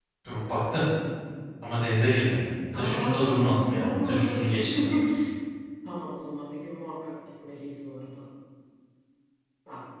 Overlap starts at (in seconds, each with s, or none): 2.7 s